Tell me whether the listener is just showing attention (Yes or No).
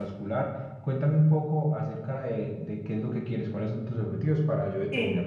No